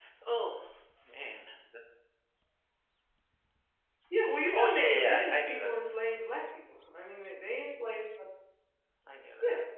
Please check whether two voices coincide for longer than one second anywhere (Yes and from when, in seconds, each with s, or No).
Yes, from 4.5 s